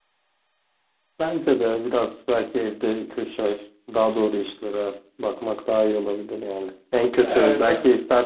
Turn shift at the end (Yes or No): No